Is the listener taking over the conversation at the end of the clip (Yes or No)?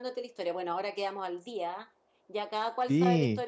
No